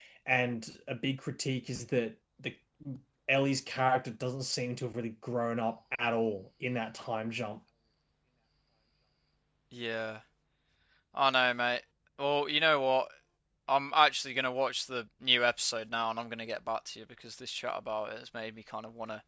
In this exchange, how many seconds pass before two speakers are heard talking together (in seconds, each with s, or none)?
none